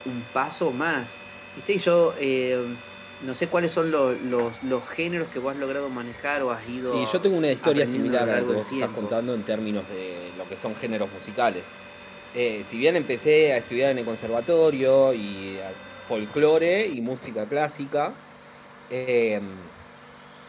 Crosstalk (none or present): present